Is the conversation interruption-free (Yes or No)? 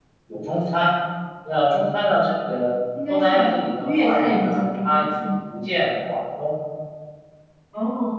No